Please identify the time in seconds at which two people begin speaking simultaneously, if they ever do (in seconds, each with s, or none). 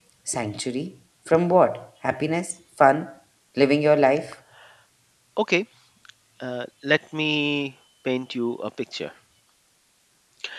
none